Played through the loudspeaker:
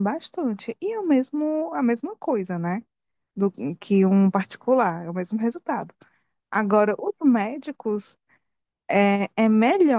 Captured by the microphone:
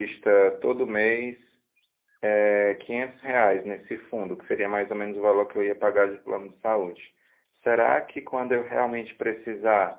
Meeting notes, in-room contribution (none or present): present